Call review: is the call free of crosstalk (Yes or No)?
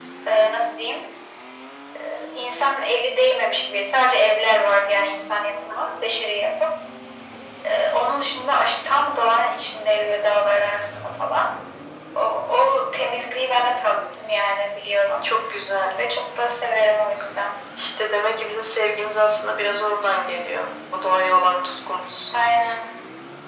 Yes